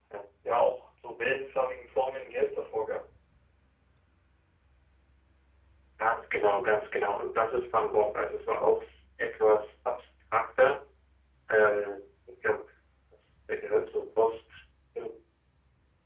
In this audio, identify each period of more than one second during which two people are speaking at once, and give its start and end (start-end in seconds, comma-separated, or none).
none